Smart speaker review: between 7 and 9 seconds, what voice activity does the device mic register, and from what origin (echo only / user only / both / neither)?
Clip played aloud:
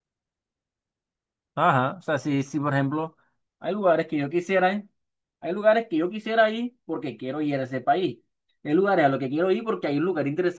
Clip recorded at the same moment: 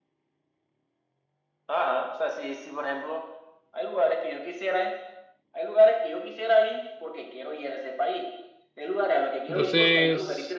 echo only